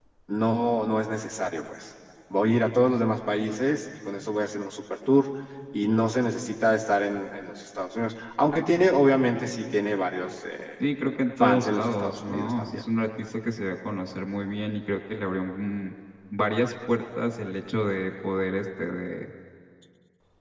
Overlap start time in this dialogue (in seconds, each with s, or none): 11.4 s